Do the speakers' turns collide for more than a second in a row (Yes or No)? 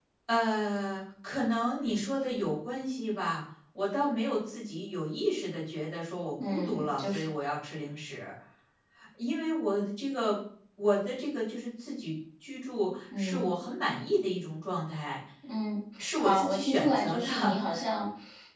Yes